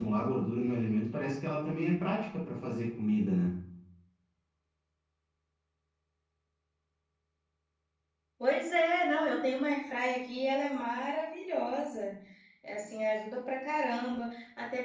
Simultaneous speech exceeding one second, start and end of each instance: none

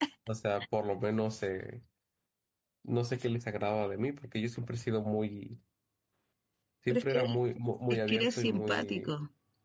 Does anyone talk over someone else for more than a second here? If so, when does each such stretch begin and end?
7.9-9.1

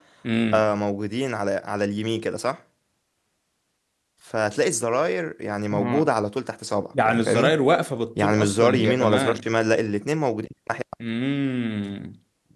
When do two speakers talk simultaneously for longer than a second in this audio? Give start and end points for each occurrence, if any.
8.2-9.5

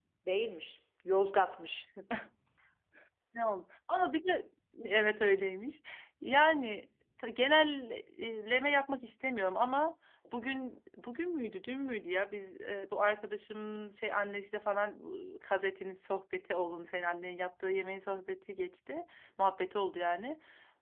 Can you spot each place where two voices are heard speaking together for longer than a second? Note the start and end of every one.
none

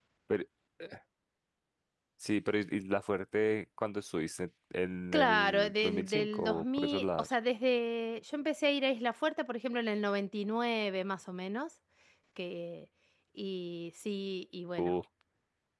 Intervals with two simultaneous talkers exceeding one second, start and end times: 5.1-7.3

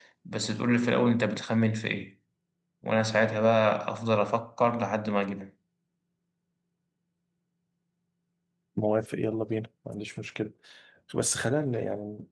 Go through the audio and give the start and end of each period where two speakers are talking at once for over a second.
none

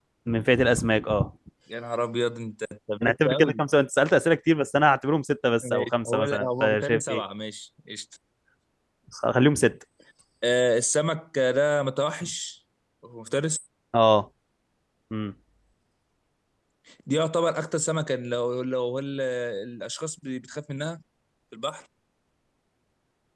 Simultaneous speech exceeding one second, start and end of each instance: 5.6-7.2

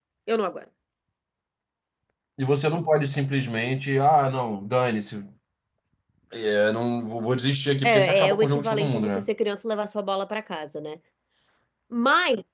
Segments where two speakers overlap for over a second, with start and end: 7.8-9.2

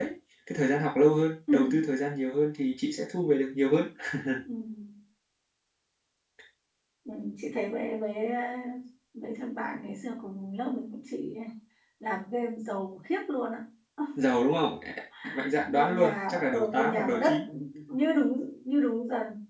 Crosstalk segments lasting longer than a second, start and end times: 15.7-17.3

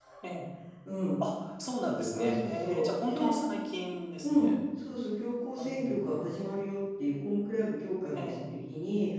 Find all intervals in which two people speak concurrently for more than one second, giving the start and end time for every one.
2.1-3.4

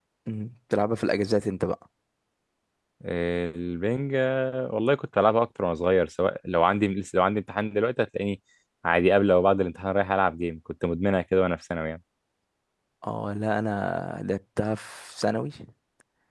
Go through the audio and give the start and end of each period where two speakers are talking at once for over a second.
none

